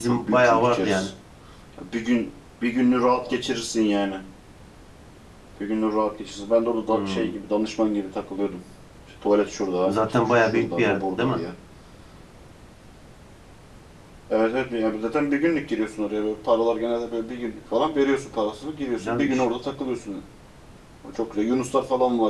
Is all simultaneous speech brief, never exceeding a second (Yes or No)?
No